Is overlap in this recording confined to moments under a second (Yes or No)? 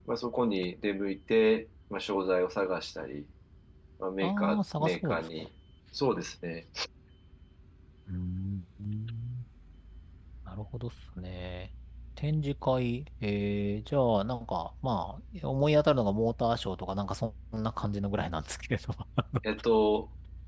No